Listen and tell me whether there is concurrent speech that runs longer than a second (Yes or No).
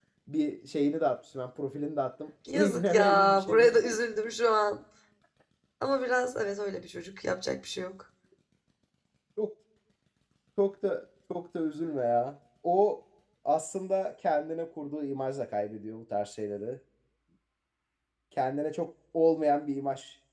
Yes